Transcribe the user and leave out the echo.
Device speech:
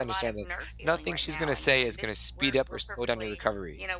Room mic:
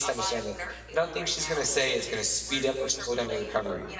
none

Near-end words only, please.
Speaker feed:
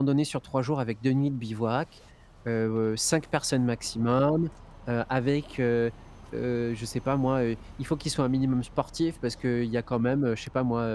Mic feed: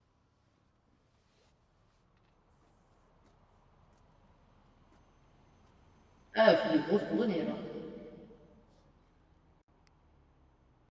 Ah, c'est des grosses randonnées, alors.

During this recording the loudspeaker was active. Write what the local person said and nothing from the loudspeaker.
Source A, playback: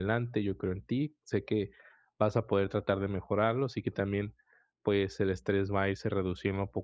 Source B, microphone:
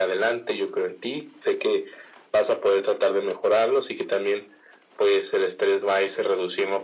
none

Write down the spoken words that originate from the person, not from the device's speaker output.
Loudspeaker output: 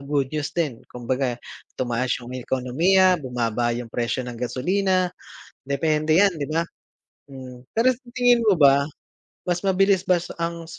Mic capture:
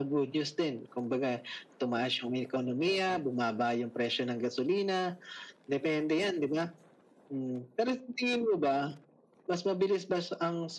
none

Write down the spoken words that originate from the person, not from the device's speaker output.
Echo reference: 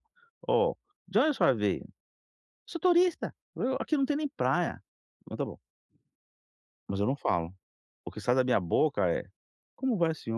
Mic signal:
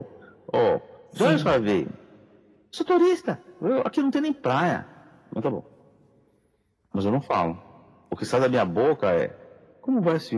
Sim.

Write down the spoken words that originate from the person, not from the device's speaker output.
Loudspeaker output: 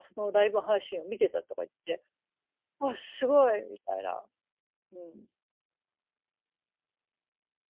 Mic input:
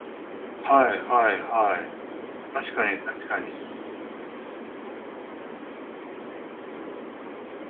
はいはいはい。確かに確かに。

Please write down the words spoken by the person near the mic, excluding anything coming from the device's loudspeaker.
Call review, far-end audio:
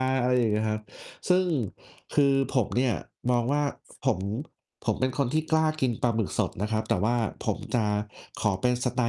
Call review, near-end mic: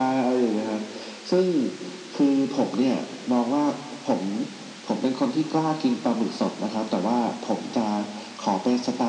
none

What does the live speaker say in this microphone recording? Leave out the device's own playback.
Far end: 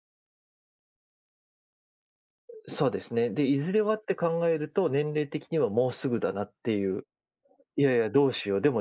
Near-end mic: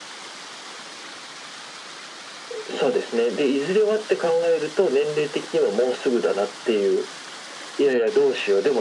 none

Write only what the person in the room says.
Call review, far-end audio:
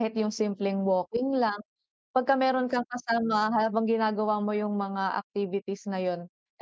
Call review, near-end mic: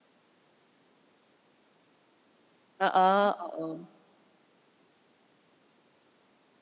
Oo, oo.

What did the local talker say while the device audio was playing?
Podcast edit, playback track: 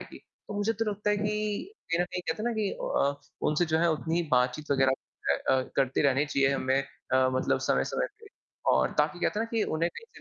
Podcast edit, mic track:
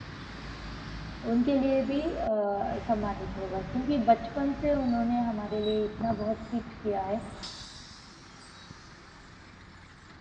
उनके लिए भी अ, सम्मानित होगा, क्योंकि बचपन से उन्होंने हमारे लिए इतना बहुत कुछ किया है,

